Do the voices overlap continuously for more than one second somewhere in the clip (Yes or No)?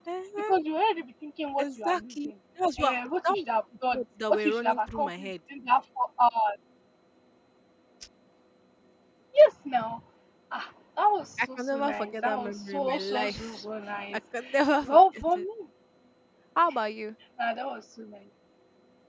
Yes